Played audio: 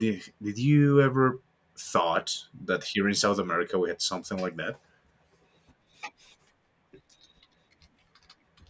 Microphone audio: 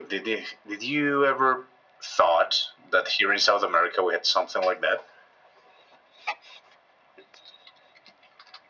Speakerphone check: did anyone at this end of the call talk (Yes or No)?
No